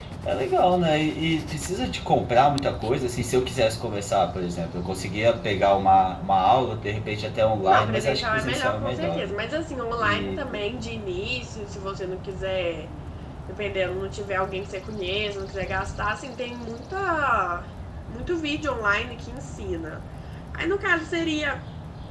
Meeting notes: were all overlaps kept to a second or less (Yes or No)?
No